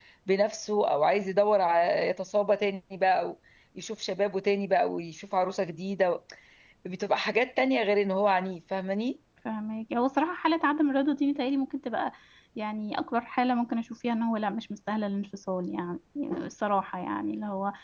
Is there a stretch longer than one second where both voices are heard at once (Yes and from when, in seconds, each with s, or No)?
No